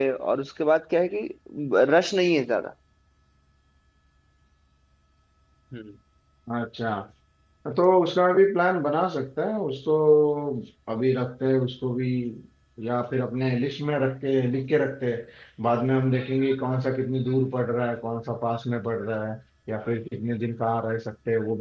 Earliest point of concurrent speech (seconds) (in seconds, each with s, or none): none